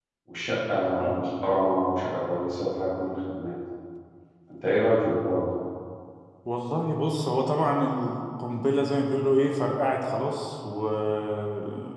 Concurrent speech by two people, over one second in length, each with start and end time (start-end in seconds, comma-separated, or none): none